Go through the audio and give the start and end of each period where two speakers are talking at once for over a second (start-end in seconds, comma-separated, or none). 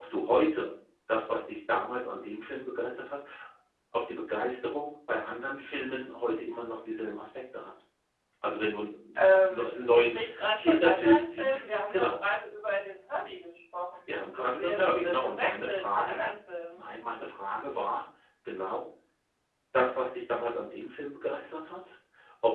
9.2-12.2, 14.3-16.2